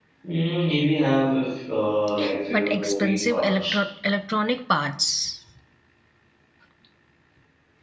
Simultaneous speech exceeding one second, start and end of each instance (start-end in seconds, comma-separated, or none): 2.5-3.8